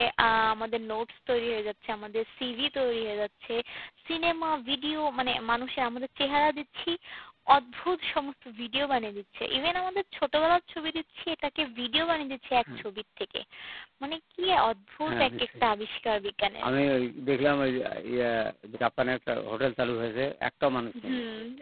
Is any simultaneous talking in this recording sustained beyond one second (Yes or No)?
No